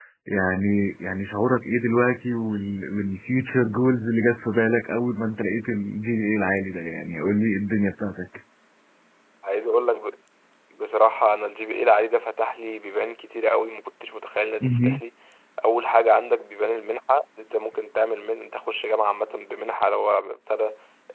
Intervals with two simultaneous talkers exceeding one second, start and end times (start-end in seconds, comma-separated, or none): none